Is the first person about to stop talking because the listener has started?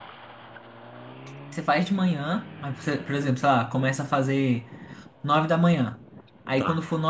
No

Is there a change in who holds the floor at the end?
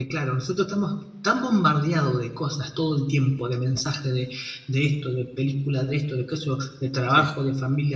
No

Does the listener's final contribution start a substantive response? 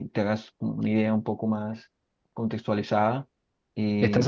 Yes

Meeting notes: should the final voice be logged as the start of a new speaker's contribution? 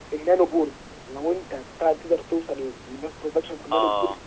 No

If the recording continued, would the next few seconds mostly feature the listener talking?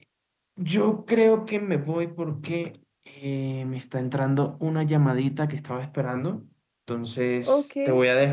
No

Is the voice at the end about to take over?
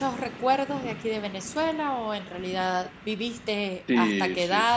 Yes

